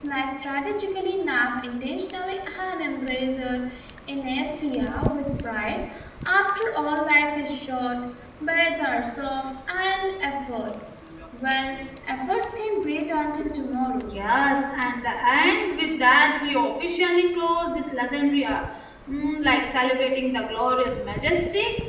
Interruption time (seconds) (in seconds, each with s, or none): none